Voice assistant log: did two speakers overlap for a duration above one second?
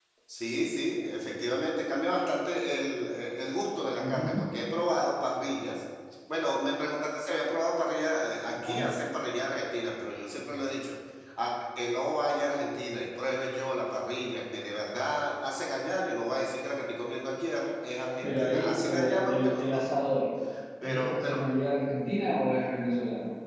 Yes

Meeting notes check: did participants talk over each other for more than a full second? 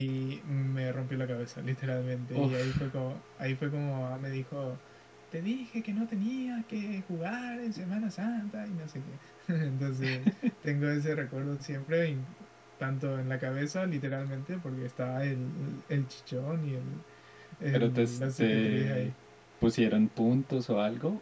Yes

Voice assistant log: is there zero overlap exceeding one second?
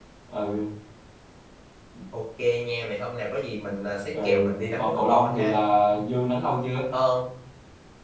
No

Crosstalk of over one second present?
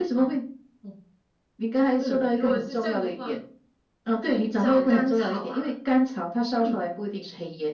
Yes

